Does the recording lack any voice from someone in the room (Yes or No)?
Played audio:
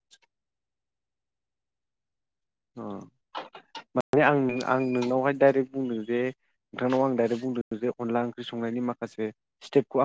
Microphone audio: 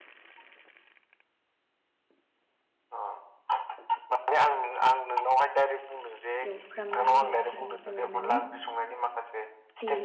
No